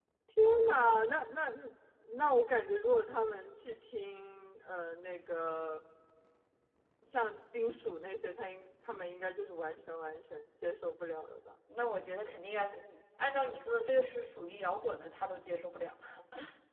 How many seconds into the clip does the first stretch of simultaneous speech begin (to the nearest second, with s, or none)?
none